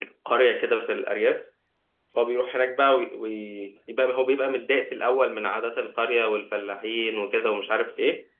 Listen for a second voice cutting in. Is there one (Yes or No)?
No